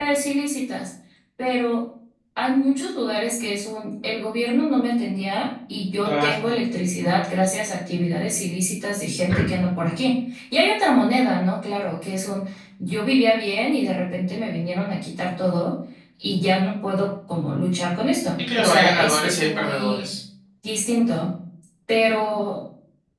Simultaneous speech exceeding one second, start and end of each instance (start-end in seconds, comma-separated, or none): 18.6-20.1